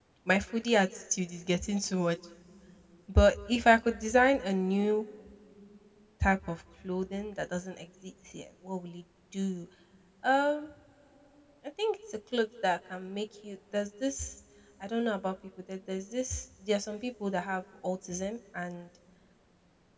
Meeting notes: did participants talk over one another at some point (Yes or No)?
No